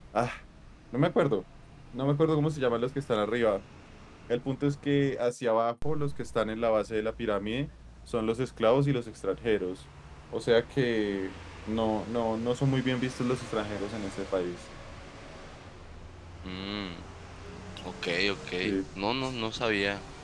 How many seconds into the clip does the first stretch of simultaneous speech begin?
none

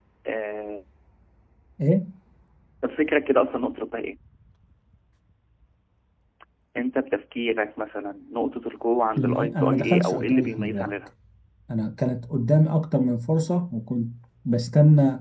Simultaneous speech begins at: 9.2 s

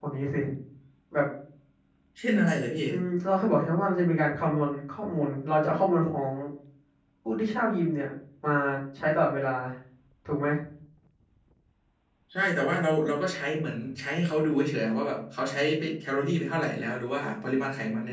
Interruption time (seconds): none

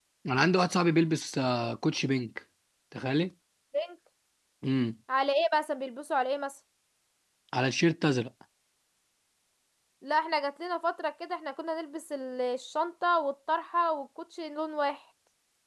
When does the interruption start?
none

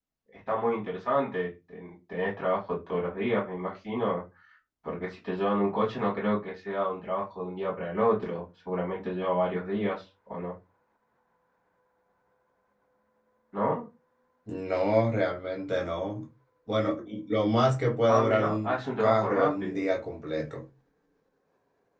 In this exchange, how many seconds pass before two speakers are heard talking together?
18.1 s

